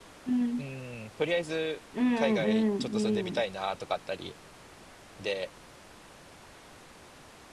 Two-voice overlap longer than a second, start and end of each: 2.1-3.4

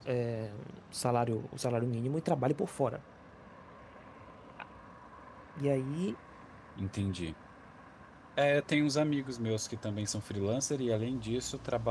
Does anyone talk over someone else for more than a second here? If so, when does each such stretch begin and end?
none

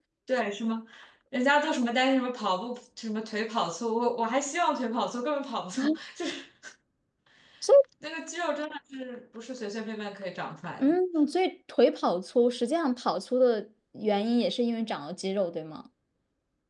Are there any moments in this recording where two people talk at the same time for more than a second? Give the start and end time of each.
none

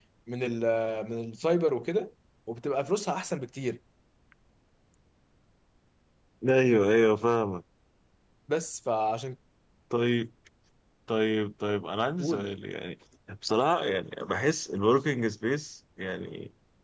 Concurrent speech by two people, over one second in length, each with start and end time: none

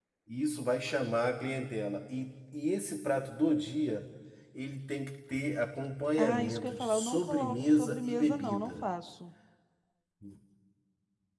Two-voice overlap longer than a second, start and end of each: 6.2-8.8

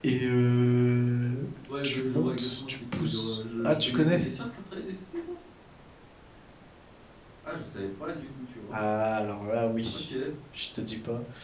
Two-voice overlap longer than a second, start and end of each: 1.8-4.2

